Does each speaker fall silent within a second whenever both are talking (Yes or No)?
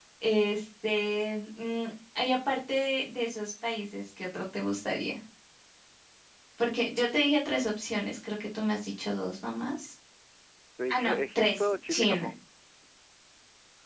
No